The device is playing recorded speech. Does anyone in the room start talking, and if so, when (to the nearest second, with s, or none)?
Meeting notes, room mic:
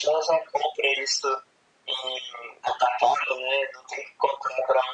none